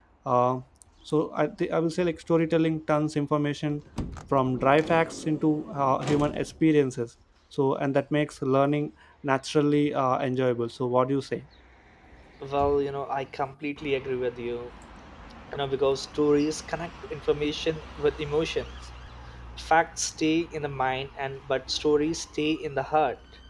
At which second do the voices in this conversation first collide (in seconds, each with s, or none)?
none